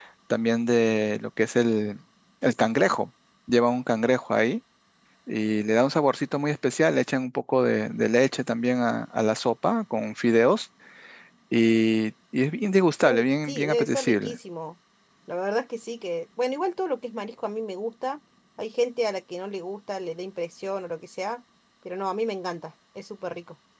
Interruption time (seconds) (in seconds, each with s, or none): 13.1 s